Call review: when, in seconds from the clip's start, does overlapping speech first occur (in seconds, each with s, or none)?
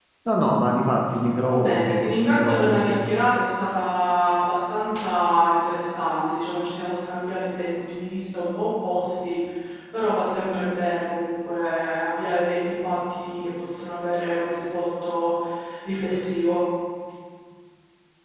1.5 s